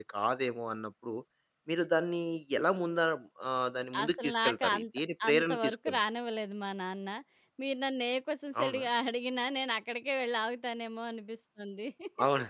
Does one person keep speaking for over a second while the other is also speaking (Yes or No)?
Yes